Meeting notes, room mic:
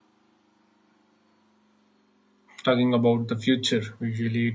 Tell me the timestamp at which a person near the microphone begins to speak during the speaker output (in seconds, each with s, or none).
2.6 s